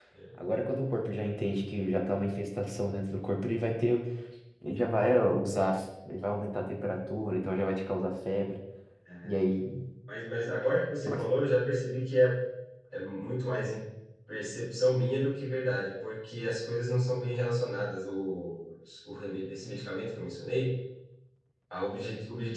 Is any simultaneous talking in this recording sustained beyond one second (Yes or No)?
No